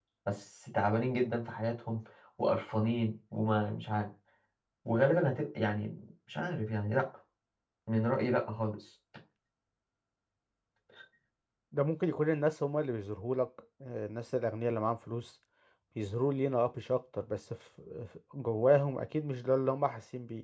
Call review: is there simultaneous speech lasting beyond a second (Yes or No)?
No